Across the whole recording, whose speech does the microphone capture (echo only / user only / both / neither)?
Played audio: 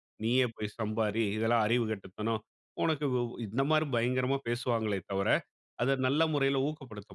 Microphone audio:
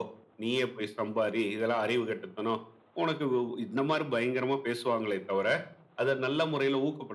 echo only